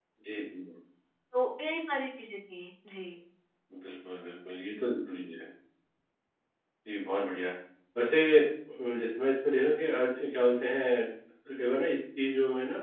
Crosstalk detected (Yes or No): No